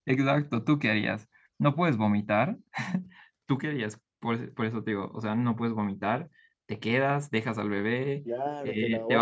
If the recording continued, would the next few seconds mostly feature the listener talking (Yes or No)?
Yes